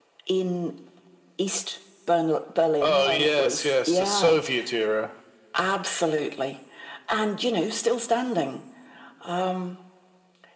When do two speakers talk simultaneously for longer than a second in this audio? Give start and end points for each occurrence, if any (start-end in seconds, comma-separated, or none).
2.8-4.4